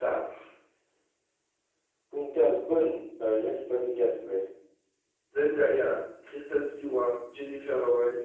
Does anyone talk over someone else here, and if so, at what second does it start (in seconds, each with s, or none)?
none